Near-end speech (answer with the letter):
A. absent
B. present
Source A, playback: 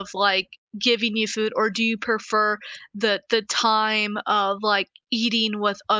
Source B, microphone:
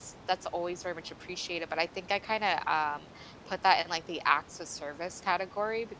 B